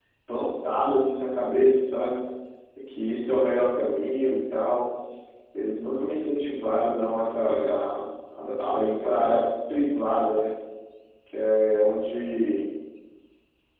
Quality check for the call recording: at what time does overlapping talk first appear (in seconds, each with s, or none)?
none